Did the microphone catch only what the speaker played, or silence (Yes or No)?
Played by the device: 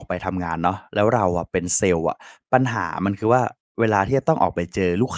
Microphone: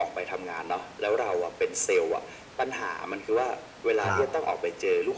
No